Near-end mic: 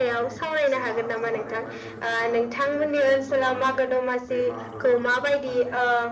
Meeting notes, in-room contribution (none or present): present